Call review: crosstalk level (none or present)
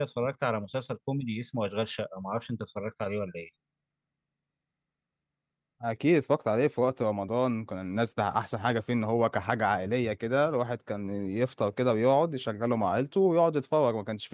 none